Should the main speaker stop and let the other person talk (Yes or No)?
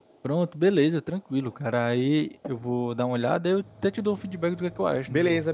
Yes